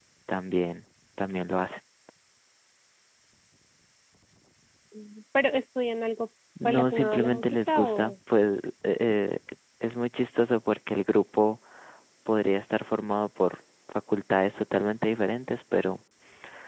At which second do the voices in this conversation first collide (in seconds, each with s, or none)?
6.5 s